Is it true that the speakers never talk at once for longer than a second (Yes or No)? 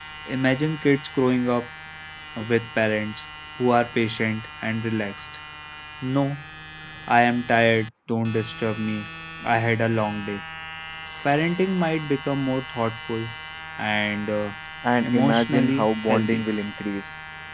No